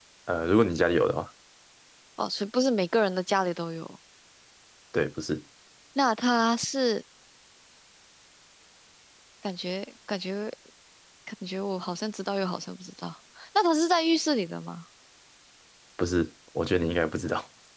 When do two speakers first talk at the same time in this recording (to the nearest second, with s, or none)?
none